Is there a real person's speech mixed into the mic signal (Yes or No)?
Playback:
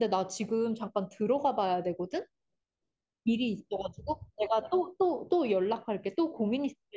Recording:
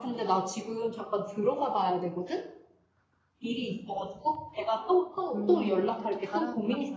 Yes